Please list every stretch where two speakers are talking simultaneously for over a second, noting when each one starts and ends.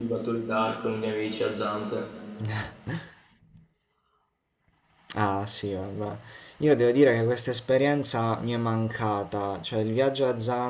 none

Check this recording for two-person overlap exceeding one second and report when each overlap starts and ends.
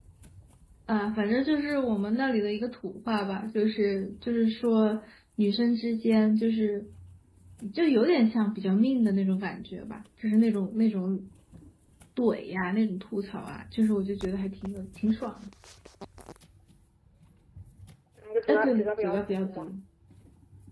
18.5-19.7

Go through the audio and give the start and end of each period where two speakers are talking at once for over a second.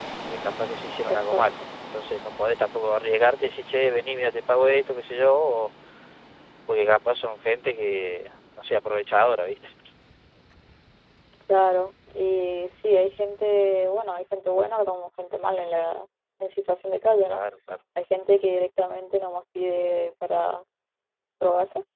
none

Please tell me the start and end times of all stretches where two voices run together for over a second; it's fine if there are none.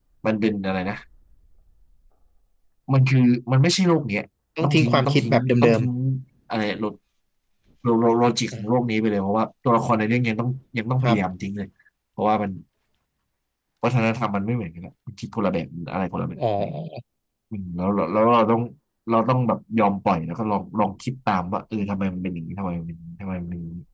4.6-5.8

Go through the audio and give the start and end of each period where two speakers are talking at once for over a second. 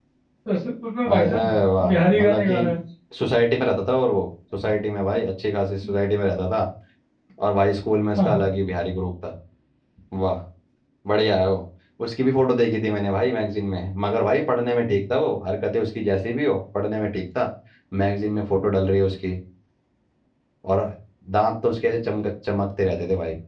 1.1-2.7

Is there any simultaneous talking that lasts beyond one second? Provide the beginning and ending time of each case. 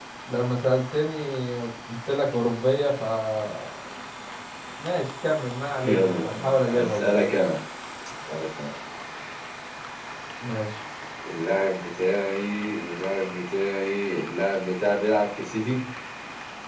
5.8-7.2

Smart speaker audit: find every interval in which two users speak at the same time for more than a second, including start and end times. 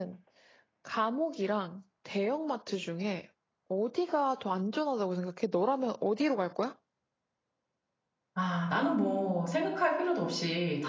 none

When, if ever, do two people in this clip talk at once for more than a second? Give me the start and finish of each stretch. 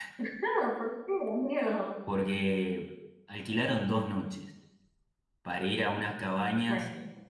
none

